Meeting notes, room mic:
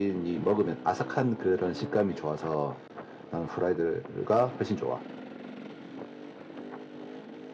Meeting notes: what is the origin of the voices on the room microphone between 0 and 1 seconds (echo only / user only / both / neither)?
echo only